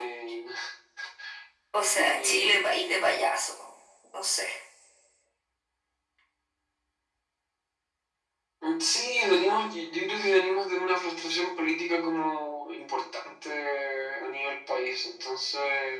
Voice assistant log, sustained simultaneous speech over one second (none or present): present